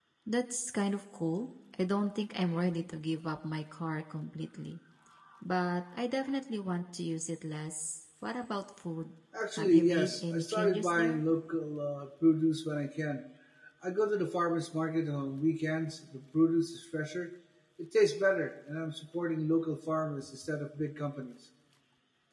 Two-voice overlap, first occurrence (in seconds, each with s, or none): 9.6 s